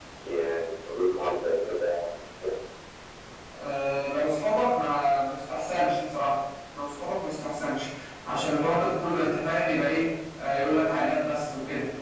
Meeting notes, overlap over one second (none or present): none